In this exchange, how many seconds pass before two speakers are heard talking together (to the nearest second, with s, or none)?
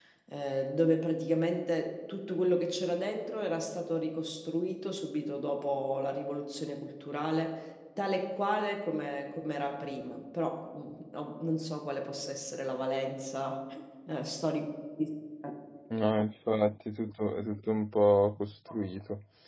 none